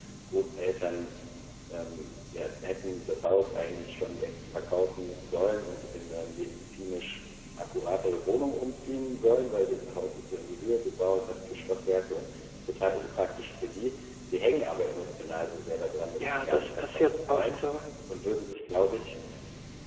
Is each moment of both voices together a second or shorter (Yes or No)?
No